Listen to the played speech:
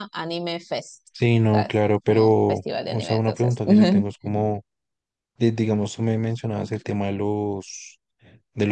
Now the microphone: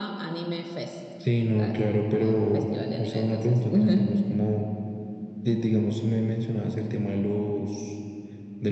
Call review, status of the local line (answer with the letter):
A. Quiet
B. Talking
A